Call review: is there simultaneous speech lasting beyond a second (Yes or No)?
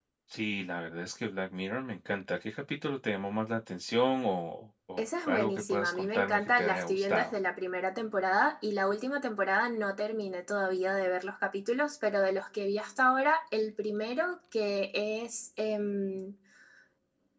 Yes